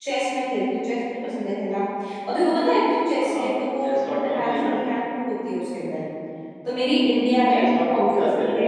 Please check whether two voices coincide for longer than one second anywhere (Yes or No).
Yes